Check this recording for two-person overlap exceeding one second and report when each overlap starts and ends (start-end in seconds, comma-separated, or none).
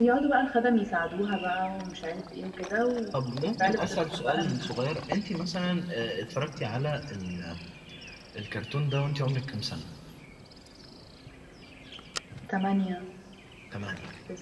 3.1-4.6